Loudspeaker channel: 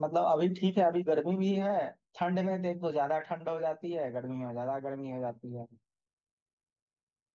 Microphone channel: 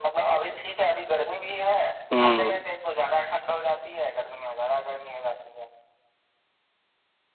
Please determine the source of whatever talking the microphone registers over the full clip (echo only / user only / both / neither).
both